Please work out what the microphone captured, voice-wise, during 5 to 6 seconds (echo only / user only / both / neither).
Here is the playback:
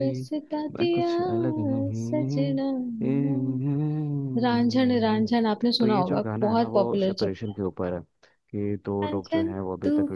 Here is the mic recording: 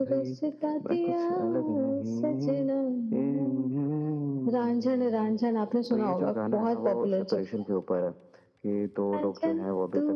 echo only